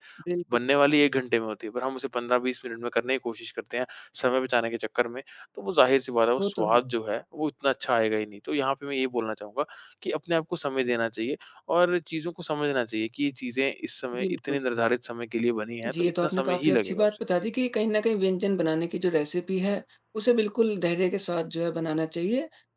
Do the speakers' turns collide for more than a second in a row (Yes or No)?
Yes